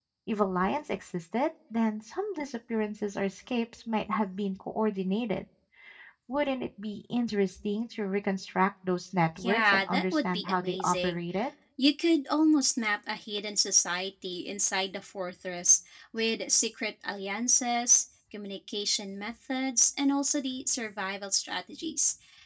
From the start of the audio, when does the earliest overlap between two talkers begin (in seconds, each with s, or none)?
9.4 s